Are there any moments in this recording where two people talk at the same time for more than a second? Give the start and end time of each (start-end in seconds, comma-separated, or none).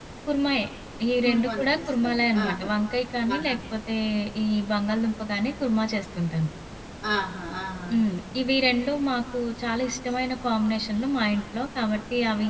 1.2-2.6